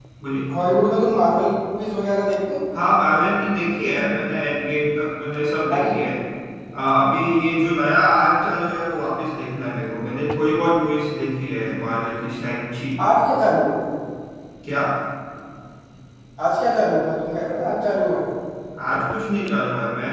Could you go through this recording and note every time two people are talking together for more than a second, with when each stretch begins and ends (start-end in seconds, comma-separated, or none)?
none